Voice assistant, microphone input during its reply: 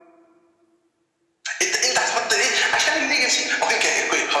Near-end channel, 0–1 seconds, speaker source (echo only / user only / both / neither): neither